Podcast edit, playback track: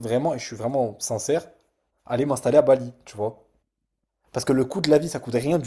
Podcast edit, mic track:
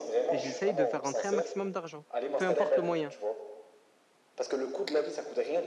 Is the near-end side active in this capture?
Yes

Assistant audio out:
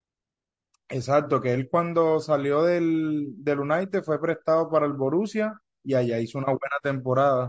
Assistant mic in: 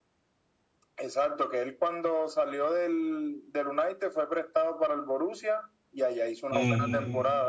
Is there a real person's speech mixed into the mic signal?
Yes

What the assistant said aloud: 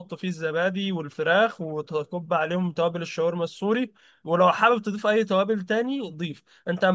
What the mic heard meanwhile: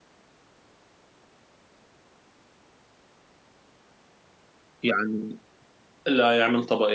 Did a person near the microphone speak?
Yes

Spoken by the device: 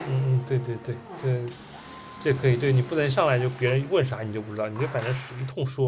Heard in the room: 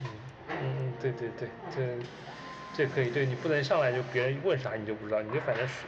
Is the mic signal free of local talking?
Yes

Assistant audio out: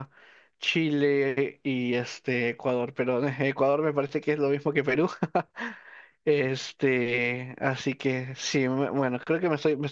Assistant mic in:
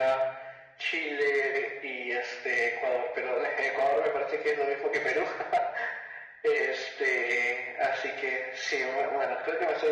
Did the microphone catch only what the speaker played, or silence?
Yes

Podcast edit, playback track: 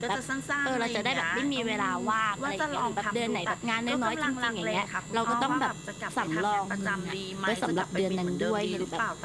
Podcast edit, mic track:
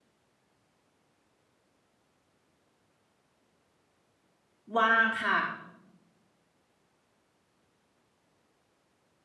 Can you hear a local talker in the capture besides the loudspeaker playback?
Yes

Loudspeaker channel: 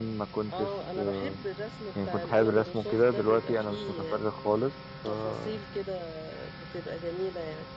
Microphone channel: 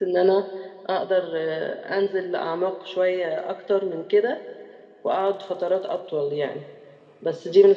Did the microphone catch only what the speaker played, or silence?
No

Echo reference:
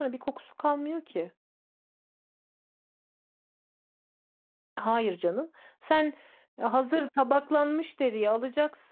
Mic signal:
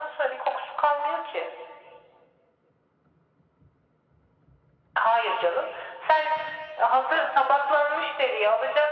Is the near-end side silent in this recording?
Yes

